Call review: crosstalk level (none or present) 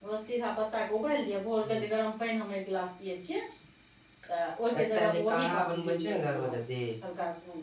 present